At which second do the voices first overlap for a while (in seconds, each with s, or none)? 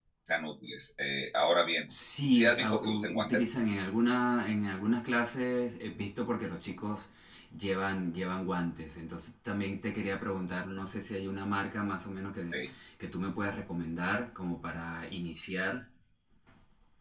2.3 s